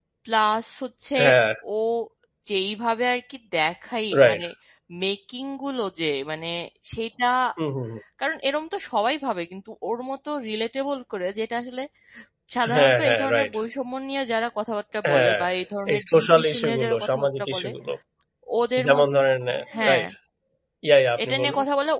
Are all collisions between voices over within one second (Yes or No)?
No